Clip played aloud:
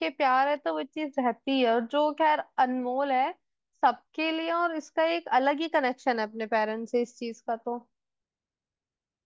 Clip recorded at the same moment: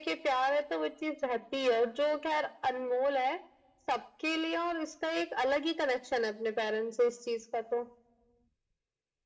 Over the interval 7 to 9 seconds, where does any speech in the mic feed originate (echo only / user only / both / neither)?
echo only